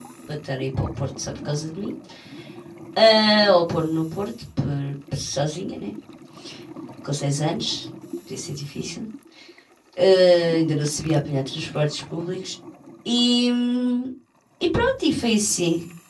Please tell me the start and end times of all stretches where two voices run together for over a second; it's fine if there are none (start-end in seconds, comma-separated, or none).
none